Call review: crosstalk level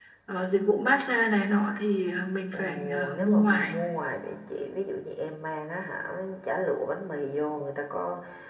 present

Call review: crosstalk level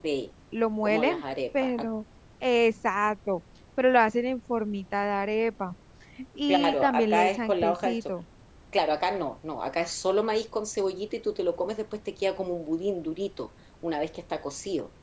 present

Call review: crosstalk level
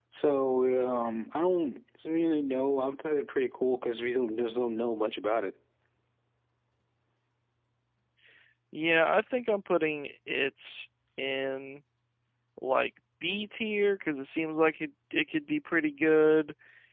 none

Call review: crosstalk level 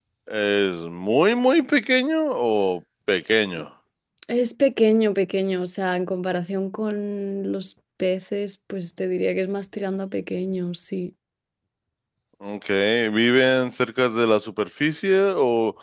none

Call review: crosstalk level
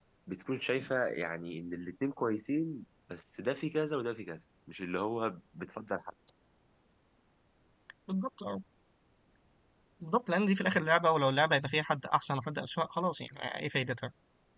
none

